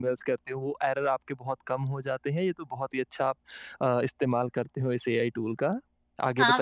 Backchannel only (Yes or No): No